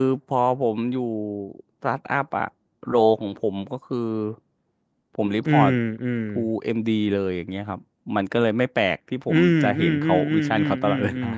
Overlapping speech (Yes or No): Yes